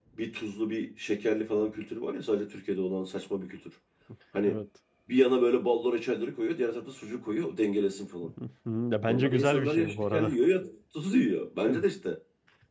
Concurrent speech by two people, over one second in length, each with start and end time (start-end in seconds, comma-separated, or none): 9.1-10.3